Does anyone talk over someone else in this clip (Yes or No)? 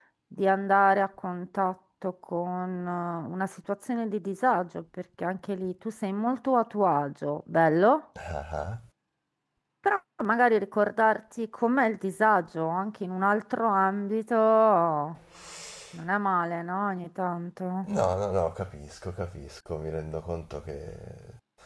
No